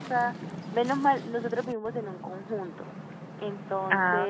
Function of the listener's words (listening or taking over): listening